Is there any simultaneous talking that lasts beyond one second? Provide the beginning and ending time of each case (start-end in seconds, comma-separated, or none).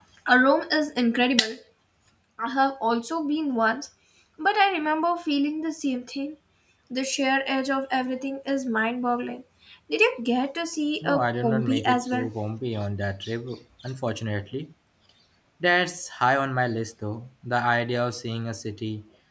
11.0-12.3